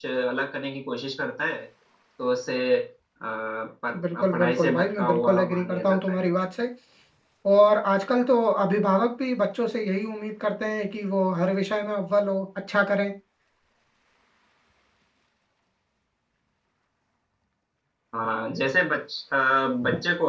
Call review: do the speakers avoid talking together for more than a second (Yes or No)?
No